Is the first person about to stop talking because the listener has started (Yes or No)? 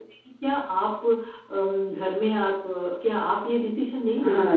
Yes